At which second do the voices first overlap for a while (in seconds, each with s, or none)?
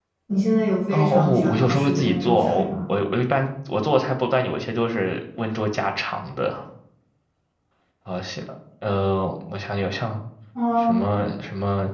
0.9 s